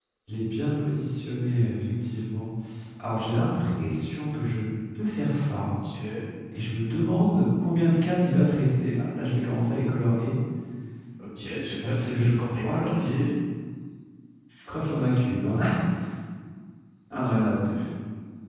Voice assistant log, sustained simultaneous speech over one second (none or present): present